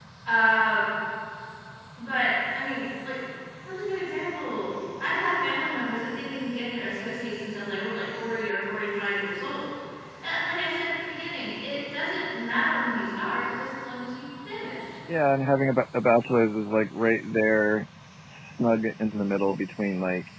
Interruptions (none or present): none